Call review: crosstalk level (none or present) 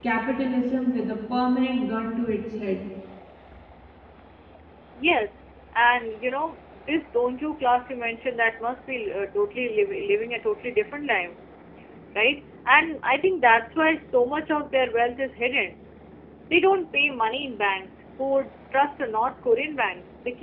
none